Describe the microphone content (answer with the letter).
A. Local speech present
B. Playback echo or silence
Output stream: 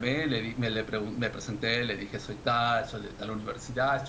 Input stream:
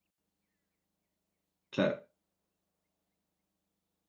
A